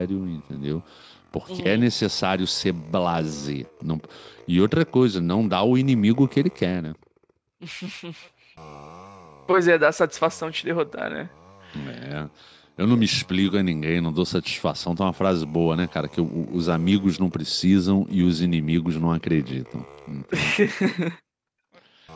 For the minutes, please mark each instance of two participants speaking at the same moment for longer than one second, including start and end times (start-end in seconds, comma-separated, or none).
none